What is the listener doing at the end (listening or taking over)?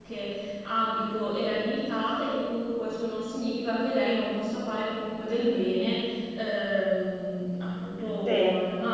listening